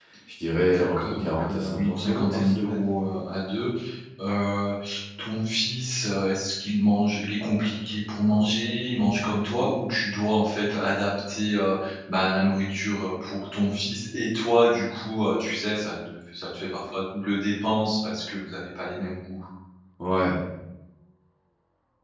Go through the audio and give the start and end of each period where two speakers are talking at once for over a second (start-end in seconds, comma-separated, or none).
0.7-2.9